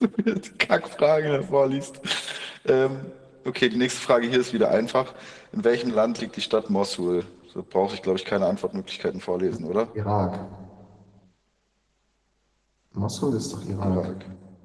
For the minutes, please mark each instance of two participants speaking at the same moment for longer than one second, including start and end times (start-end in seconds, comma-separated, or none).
none